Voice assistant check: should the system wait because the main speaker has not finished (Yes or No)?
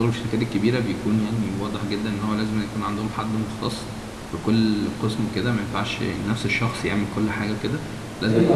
No